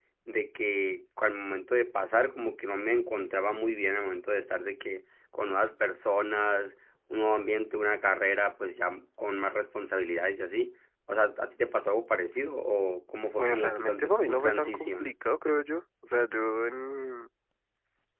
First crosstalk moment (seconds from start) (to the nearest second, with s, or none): 13 s